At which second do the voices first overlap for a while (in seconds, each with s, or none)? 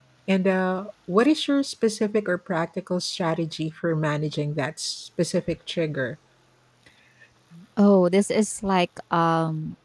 none